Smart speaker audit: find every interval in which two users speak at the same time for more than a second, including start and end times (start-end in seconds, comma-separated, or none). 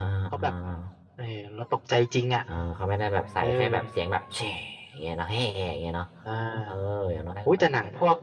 none